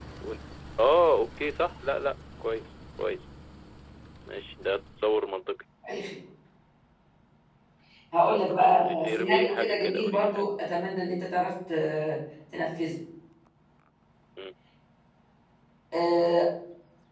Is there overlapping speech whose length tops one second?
Yes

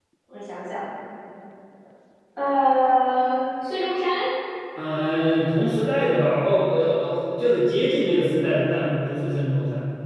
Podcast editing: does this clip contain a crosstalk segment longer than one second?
No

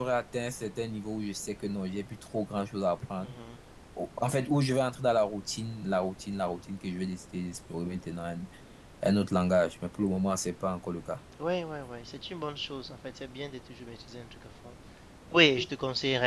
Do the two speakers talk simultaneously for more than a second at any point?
No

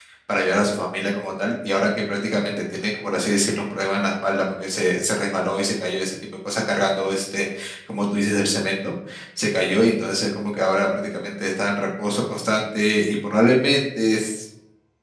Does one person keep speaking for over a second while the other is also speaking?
No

